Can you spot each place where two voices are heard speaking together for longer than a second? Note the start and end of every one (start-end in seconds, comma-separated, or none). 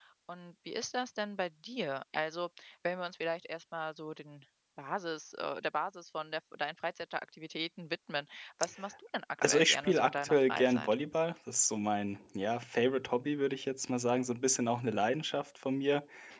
9.4-11.0